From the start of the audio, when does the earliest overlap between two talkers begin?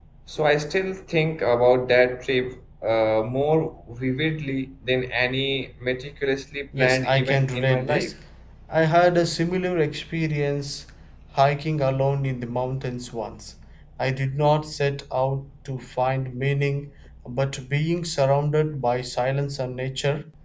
6.7 s

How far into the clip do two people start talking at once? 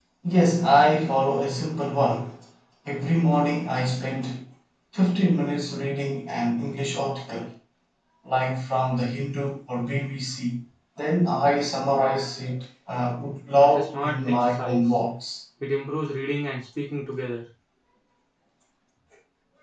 13.5 s

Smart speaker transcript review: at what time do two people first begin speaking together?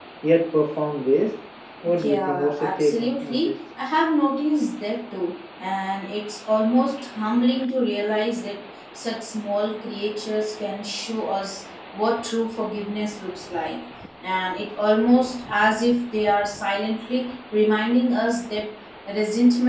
2.0 s

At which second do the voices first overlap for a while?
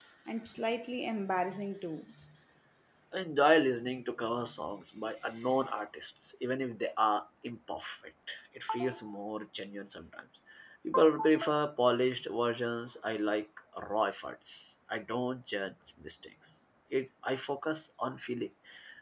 none

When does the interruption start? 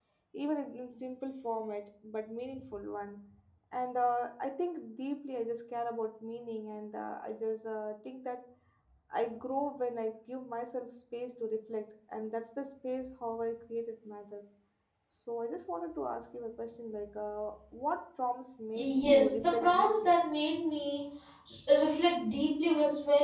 18.7 s

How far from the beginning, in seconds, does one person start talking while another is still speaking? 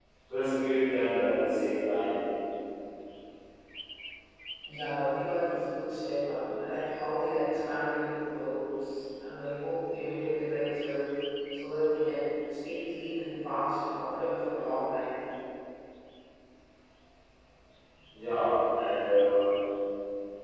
none

